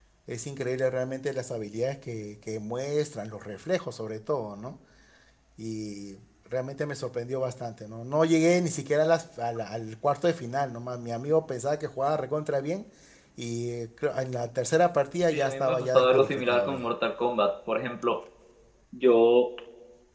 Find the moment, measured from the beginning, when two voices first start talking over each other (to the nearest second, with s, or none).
15 s